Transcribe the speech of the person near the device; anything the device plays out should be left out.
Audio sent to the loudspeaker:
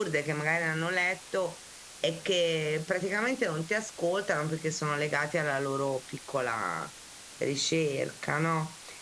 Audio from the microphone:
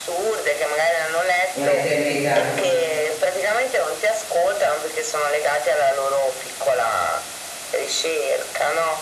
un'eternità.

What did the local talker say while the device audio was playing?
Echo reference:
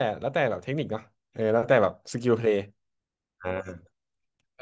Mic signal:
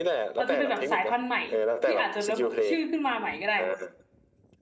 อาจจะเป็นแบบสายพันธุ์ใหม่ที่อาจจะระบุชื่อขึ้นมาใหม่ก็ได้

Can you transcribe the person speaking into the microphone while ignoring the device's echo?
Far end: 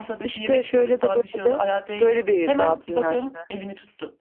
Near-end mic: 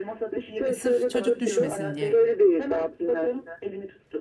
E, Sırf çocuk düşmesin diye.

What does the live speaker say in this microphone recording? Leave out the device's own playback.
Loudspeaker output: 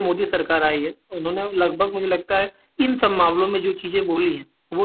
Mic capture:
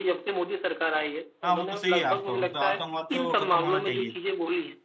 हाँ वो तो सही है आपका मतलब आतंकवाद तो खत्म होना चाहिए

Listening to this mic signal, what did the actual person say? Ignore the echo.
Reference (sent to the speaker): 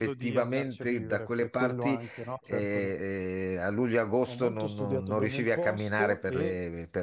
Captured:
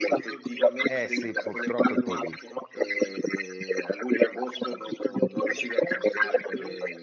Eh sì, purtroppo è così.

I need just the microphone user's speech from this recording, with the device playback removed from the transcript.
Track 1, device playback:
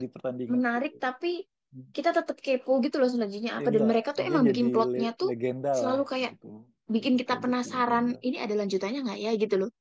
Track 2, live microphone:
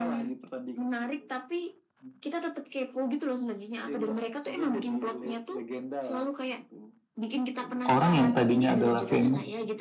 orang yang tadinya adalah famous

